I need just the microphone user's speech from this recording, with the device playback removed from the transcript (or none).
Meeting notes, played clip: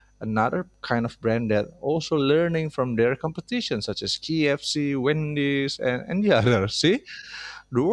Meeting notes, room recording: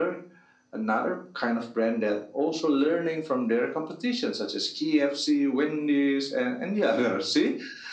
none